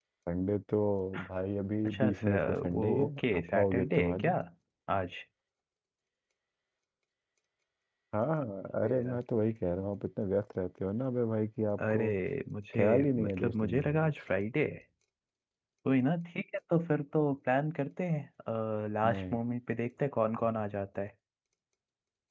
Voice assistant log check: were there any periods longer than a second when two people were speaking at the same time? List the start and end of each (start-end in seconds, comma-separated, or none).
1.8-4.3, 12.7-14.1